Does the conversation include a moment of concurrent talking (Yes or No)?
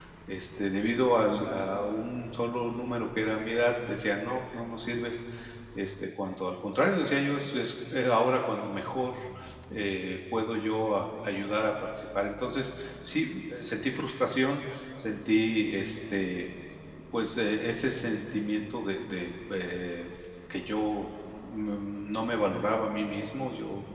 No